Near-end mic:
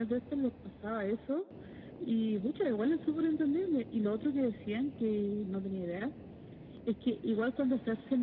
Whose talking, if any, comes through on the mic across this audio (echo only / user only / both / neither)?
echo only